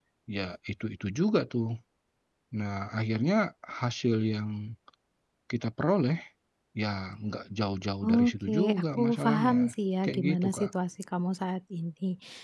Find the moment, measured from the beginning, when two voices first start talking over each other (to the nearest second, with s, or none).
8 s